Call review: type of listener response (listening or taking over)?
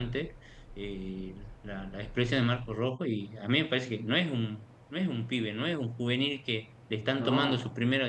listening